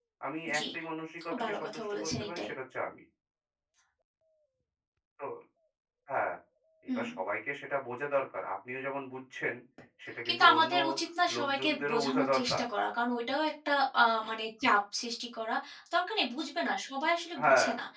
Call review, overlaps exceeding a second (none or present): present